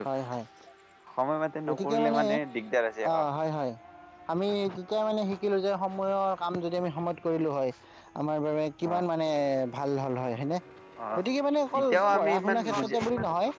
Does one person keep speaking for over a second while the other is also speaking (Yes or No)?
Yes